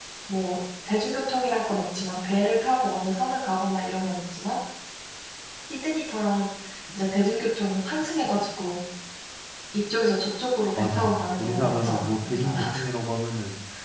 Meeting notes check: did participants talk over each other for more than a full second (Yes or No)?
Yes